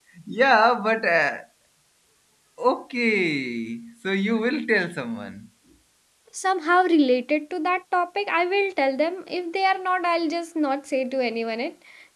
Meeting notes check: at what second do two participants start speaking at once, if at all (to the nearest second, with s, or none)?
none